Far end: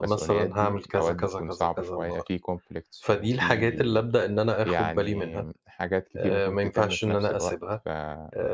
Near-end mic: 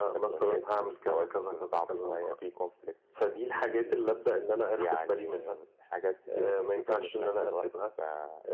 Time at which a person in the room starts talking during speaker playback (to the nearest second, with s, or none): none